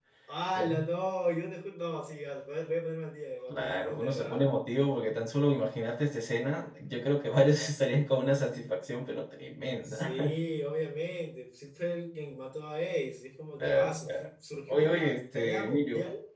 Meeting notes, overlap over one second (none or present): present